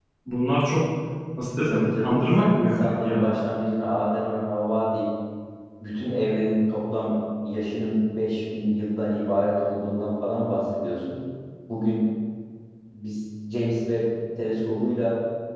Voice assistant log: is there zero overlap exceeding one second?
No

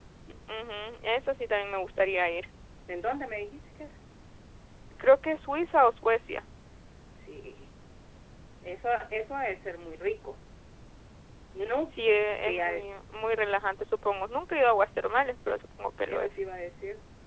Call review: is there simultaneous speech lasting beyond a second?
No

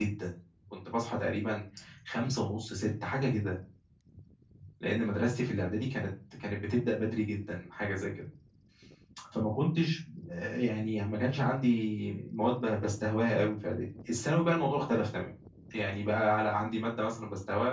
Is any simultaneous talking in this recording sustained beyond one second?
No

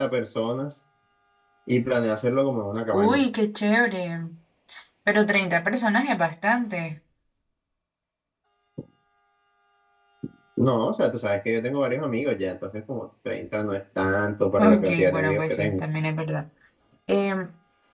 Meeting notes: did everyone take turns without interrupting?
No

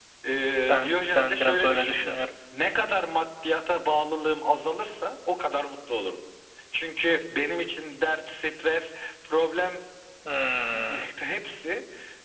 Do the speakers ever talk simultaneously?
Yes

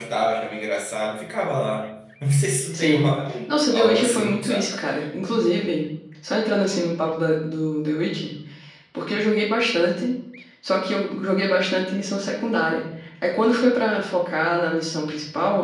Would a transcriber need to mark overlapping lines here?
Yes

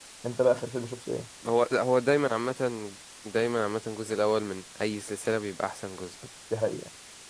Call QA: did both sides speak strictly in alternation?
Yes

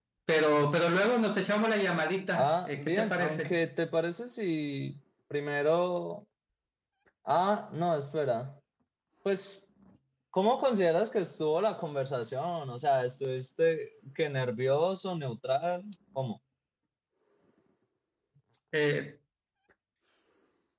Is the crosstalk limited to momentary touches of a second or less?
No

